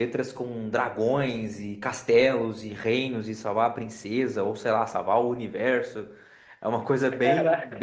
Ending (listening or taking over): listening